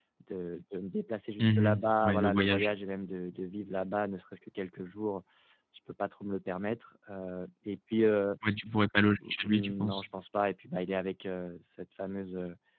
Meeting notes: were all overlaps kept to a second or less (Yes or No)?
No